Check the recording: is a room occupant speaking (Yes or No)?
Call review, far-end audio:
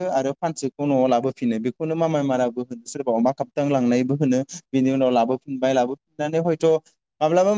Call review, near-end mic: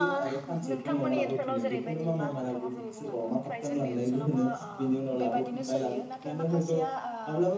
Yes